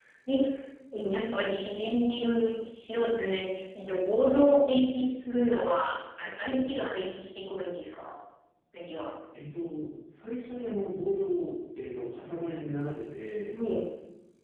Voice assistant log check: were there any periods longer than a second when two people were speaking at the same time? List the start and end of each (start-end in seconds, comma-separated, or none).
none